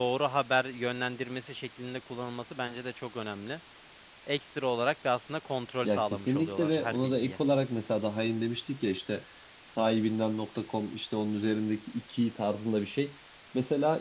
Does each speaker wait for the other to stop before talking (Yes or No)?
No